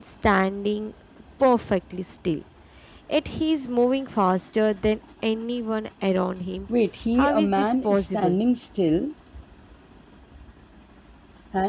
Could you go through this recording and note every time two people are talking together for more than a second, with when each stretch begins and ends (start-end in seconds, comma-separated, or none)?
7.2-8.4